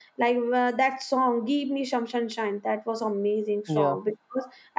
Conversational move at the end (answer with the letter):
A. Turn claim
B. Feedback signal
B